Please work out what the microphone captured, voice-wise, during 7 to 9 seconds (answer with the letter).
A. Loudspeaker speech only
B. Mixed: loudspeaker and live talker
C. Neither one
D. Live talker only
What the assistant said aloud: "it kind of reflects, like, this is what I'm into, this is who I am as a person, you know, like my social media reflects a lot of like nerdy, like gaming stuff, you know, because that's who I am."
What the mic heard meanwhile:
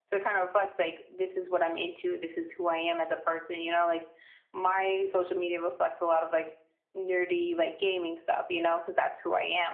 A